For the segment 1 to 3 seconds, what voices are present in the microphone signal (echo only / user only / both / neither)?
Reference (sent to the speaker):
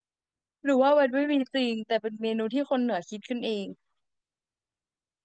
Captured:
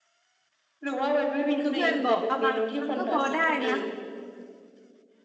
both